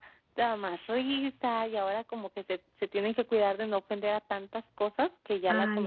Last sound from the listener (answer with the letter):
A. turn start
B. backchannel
A